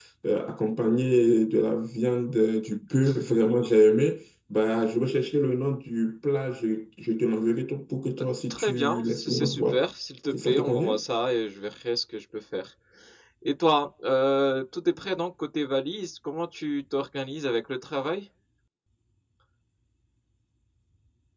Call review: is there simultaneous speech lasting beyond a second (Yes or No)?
Yes